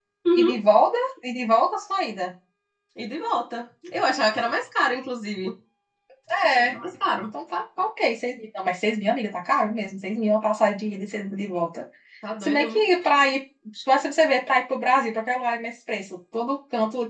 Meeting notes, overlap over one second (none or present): none